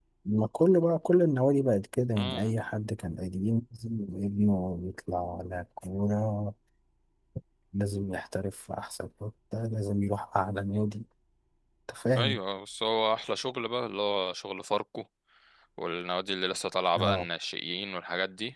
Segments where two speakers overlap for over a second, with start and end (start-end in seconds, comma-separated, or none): none